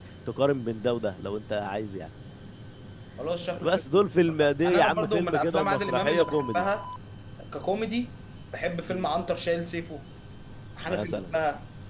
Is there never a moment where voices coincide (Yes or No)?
No